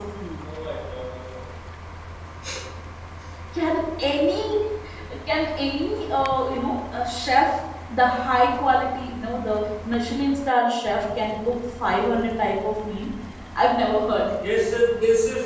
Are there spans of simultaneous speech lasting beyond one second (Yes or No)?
No